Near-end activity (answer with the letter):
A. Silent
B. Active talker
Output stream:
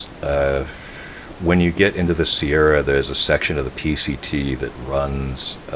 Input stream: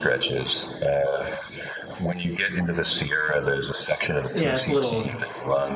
B